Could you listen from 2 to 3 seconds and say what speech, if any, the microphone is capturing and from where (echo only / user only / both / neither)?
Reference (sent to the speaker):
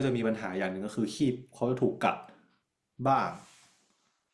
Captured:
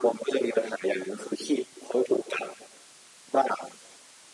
echo only